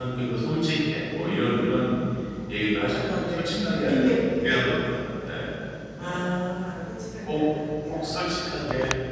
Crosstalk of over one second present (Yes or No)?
Yes